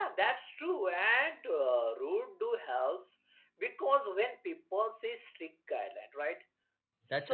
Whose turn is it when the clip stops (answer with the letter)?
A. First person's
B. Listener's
A